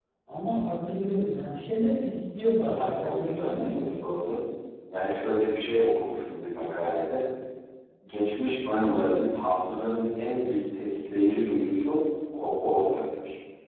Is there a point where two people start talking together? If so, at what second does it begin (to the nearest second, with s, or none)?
3 s